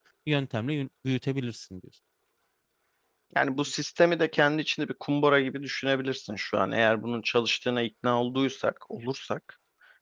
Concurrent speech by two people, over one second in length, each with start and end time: none

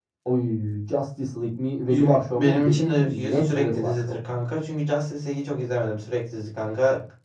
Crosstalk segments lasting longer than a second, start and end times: 1.9-4.2

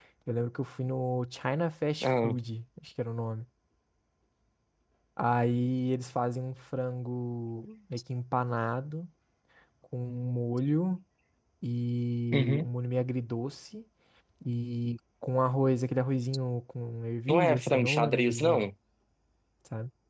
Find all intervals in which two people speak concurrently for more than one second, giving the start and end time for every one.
17.3-18.7

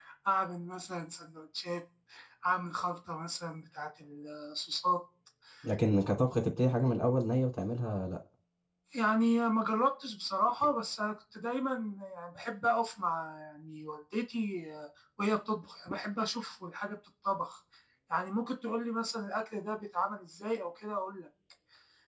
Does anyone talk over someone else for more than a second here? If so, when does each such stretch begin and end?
none

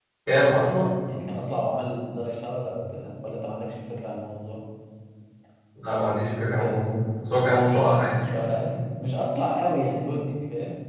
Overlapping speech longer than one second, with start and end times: none

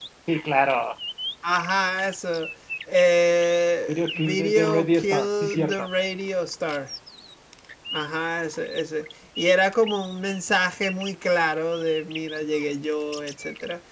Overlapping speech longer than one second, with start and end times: 3.9-5.9

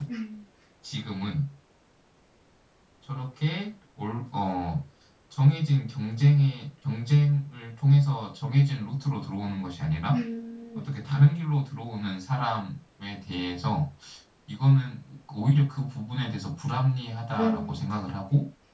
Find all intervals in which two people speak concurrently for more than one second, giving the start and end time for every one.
none

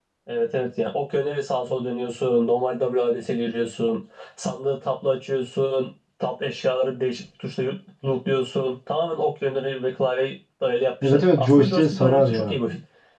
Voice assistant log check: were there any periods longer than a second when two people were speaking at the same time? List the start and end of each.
11.0-12.6

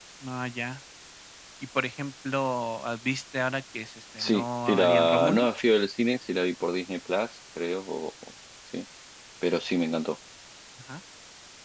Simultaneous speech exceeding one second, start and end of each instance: 4.2-5.5

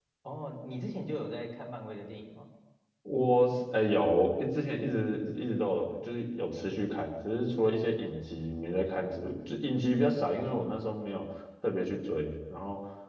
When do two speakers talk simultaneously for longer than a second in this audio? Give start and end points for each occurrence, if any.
none

